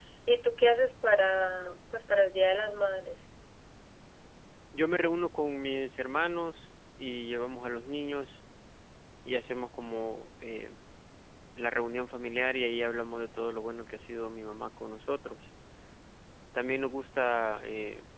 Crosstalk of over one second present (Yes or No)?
No